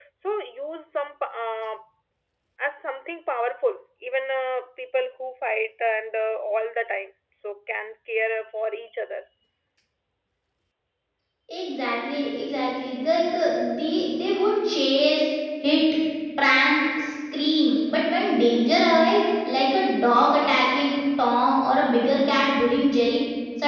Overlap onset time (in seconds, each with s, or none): none